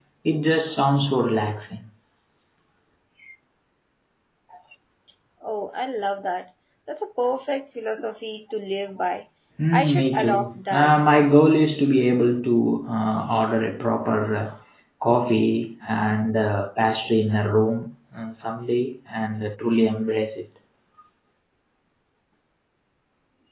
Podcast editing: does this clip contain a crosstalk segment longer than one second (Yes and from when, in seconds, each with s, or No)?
Yes, from 9.7 s